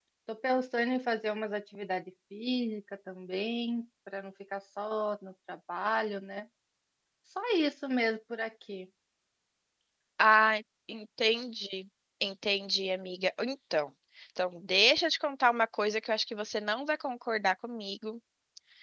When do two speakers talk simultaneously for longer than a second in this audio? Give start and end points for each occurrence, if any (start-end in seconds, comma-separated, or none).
none